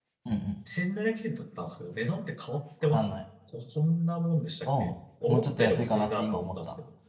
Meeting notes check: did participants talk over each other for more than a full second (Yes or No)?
Yes